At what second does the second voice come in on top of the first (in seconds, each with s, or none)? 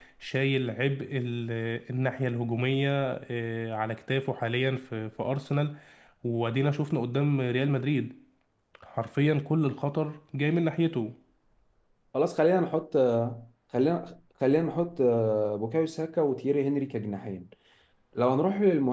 none